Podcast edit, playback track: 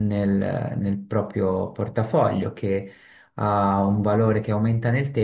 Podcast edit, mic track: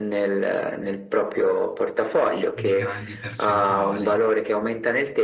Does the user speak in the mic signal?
Yes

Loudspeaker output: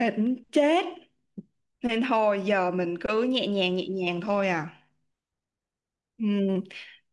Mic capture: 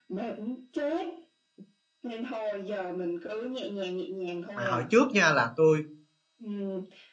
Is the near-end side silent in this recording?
No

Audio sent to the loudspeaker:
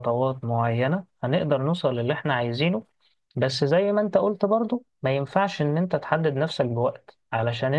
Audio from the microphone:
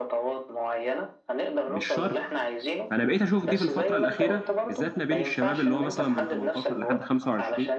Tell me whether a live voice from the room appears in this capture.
Yes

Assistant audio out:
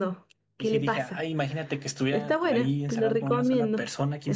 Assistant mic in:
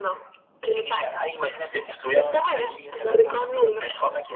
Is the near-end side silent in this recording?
Yes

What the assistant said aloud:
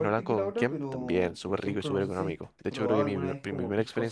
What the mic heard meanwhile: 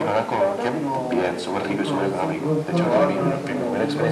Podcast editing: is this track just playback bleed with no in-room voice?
No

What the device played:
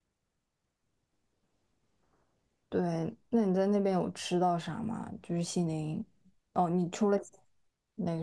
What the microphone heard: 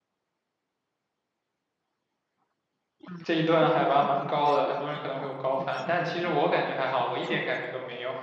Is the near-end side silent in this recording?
No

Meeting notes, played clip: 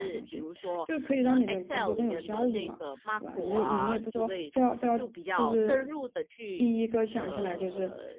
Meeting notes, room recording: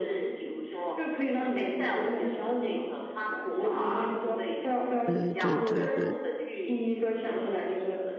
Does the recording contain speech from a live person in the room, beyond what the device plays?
Yes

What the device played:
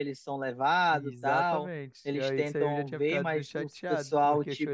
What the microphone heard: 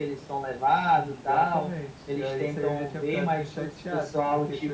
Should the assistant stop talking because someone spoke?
No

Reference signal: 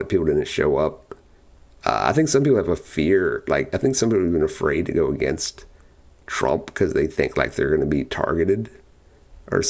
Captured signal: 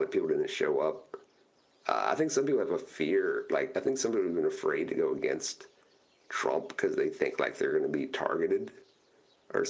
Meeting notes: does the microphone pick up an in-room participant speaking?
No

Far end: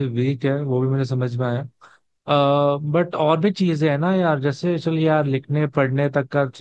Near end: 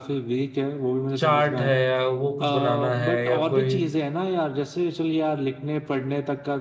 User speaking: Yes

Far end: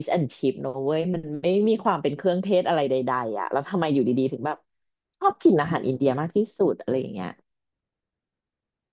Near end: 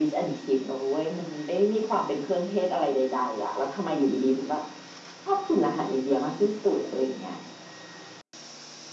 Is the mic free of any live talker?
Yes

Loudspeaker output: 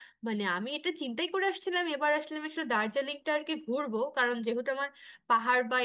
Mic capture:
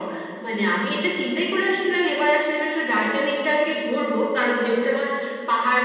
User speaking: No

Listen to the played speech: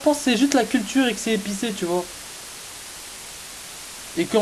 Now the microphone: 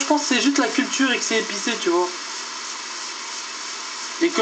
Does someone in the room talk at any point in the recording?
No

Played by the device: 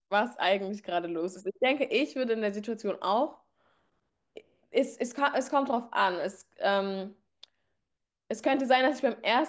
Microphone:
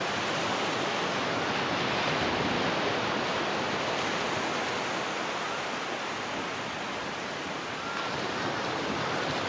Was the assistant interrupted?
No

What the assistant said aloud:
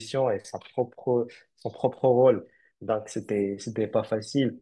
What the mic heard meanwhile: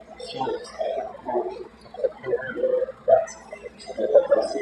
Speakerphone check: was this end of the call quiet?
Yes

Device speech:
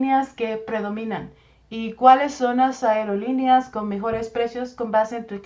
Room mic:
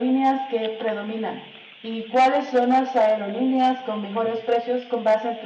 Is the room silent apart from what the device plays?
Yes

